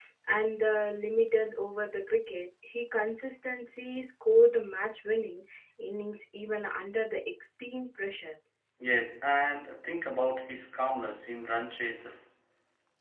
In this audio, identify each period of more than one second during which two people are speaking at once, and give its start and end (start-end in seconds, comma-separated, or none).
none